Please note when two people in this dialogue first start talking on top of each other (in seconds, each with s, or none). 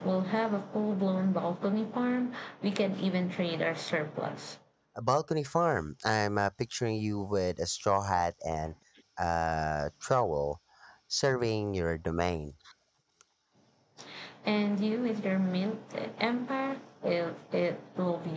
none